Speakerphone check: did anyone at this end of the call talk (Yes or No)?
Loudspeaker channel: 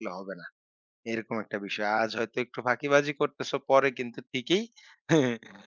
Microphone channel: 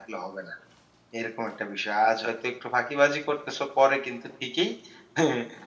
No